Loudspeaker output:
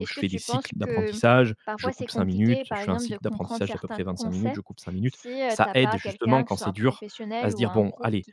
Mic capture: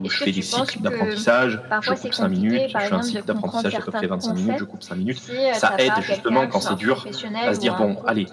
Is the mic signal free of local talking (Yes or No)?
Yes